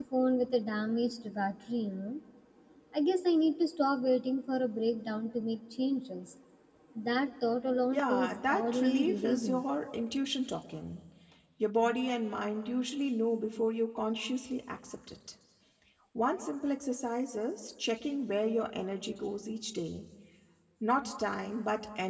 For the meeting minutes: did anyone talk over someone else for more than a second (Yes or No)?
Yes